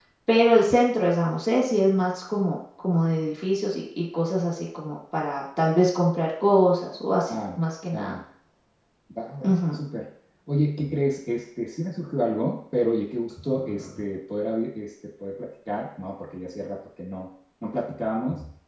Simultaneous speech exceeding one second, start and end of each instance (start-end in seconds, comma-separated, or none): none